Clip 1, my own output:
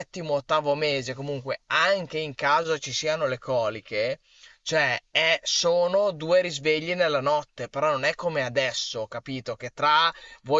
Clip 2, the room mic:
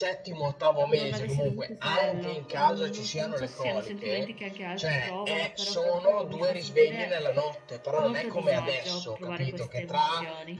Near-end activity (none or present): present